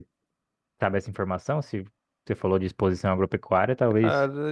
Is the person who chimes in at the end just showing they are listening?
No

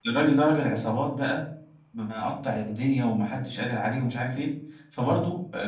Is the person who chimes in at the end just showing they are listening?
Yes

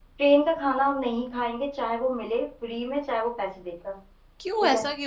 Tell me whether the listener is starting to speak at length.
Yes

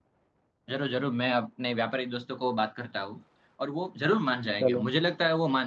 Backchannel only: Yes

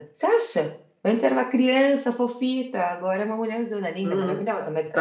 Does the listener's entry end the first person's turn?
Yes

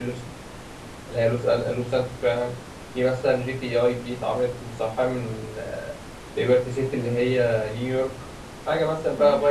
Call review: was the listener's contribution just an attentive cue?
Yes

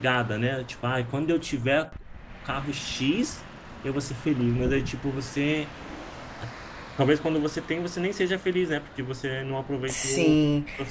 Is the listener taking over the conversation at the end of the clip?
Yes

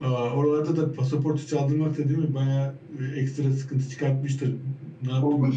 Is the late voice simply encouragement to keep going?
No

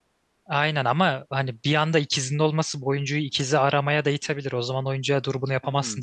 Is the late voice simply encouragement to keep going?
No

